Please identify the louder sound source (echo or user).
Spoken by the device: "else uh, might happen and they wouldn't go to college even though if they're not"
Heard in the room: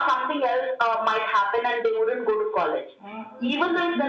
echo